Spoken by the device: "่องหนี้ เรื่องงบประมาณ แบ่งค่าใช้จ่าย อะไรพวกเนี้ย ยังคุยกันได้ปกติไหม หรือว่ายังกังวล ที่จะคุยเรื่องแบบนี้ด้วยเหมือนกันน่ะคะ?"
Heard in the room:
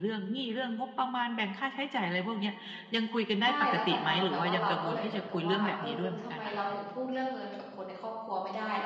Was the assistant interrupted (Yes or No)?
Yes